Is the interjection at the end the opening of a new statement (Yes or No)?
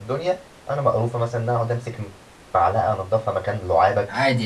Yes